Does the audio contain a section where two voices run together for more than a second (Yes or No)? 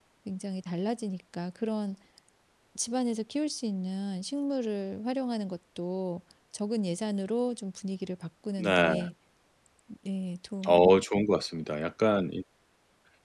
No